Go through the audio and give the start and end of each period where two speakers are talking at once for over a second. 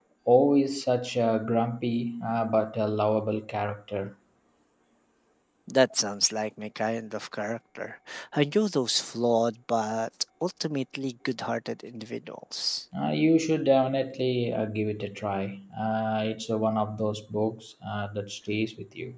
none

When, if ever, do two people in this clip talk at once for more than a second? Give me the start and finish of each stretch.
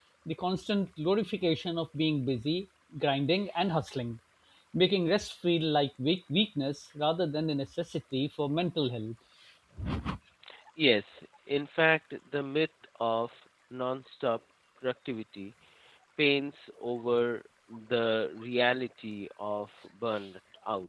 none

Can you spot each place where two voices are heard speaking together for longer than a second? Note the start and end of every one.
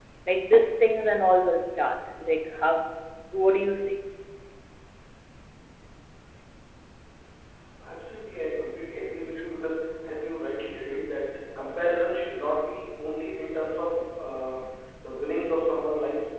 none

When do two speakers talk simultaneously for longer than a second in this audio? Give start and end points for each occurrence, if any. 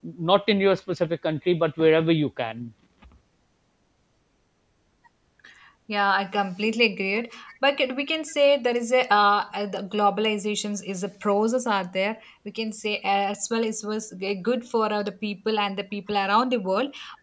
none

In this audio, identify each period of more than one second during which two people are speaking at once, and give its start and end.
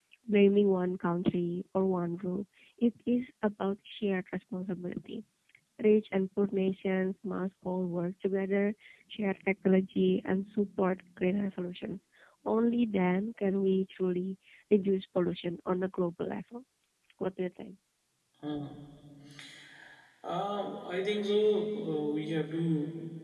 none

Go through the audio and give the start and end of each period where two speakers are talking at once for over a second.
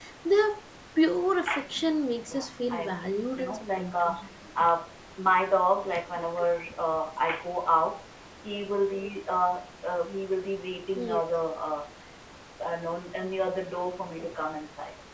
2.3-4.2

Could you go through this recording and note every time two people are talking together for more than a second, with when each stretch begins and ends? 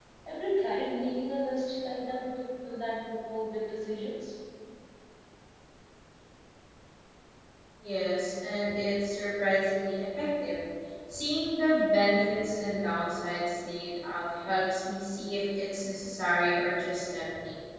none

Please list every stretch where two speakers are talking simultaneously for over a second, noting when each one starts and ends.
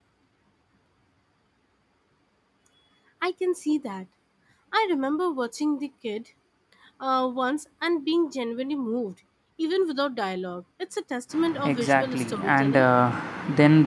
11.6-12.8

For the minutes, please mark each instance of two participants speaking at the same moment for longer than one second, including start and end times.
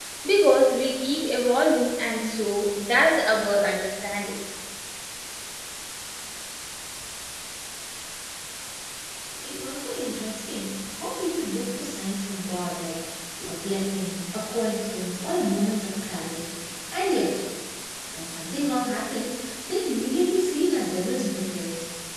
none

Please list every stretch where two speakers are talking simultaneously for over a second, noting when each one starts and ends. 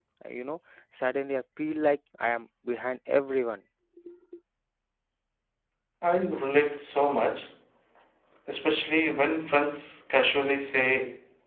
none

